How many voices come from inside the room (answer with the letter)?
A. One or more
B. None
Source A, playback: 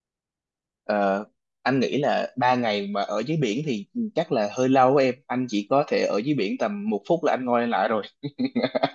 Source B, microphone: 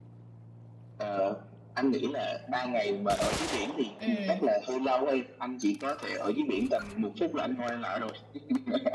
A